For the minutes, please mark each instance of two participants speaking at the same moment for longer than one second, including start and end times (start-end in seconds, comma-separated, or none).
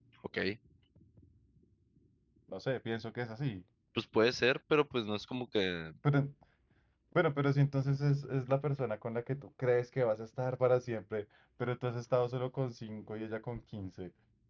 none